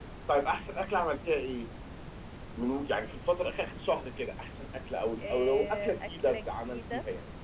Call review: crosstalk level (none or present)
present